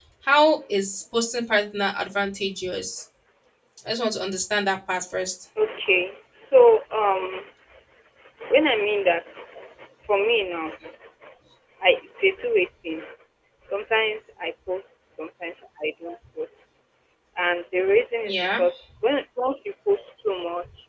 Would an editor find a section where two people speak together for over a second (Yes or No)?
No